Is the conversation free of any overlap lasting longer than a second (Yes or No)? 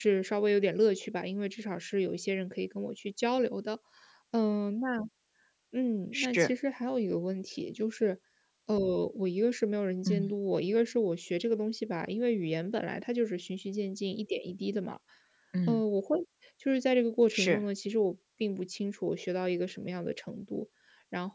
Yes